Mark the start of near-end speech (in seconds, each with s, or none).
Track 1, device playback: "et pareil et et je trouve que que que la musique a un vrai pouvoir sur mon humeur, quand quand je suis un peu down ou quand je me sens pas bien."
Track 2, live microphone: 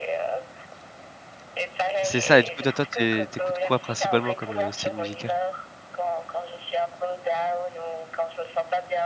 2.0 s